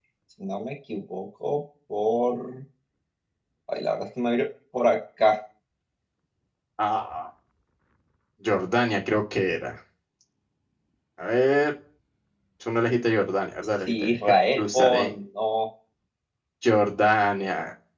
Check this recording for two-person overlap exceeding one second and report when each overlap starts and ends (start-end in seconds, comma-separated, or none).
13.9-15.1